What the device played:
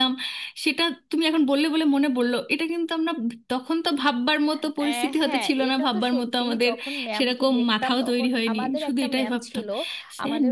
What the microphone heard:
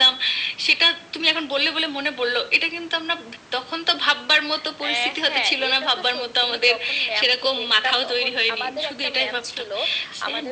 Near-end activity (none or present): none